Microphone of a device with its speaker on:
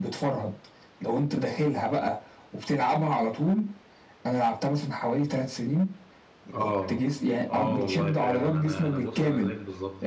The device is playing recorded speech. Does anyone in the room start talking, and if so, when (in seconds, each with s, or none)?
6.5 s